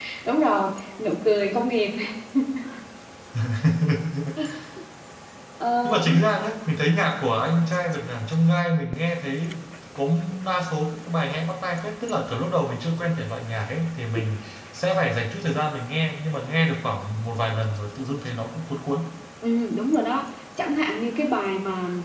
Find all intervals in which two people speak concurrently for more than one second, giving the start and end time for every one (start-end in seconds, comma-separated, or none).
none